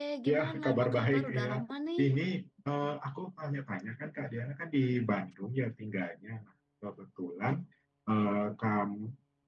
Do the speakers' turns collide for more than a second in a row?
Yes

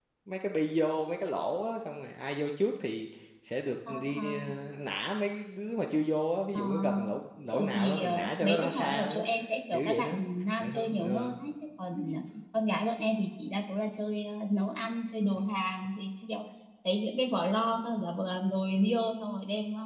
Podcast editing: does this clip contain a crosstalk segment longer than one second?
Yes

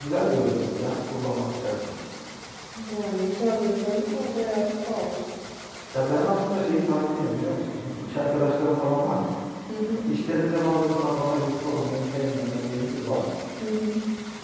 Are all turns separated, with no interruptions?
Yes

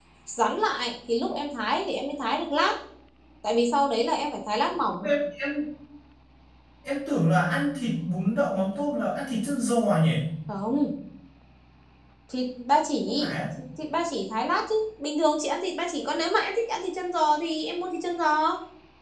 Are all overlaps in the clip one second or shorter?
Yes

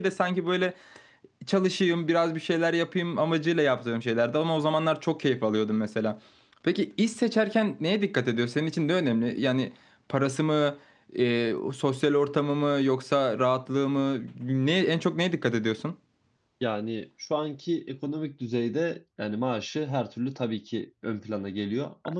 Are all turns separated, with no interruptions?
Yes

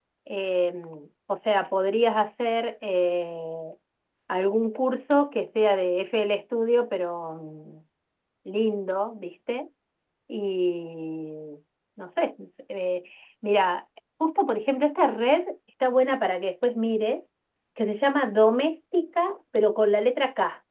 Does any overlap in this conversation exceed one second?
No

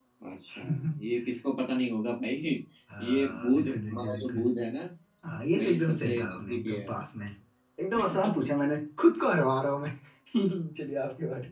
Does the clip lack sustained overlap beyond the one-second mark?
No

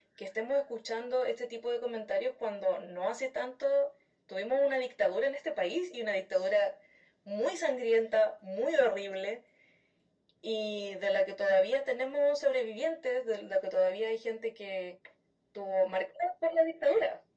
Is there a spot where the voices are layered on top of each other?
No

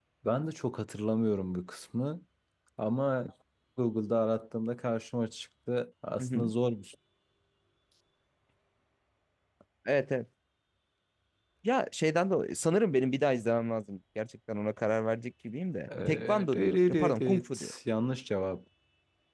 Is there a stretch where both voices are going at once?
Yes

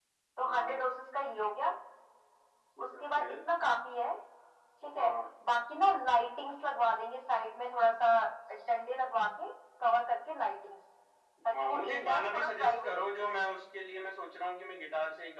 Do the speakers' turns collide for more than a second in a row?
Yes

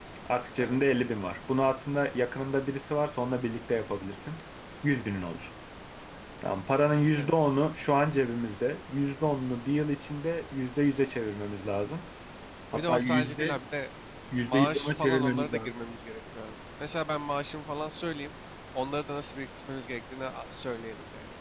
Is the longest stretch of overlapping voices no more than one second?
No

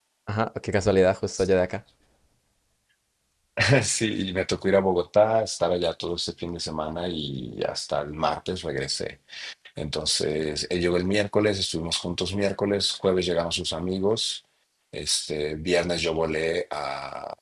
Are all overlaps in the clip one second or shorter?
Yes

